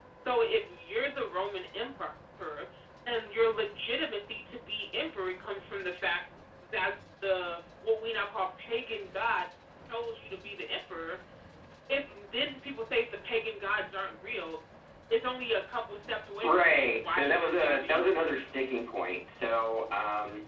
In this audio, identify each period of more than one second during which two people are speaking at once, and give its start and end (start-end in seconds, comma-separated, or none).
16.4-18.3